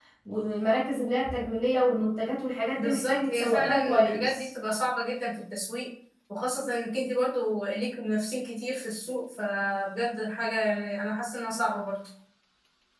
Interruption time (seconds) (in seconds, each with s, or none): 2.8 s